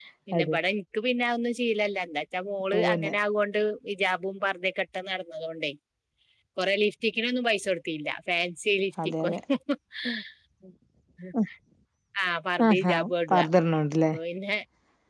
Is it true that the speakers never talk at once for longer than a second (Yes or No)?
Yes